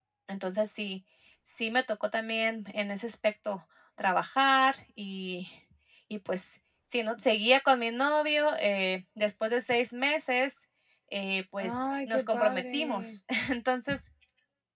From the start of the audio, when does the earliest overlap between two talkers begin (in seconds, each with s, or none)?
11.6 s